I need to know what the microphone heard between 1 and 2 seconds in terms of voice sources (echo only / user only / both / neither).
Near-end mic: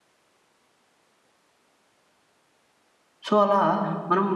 neither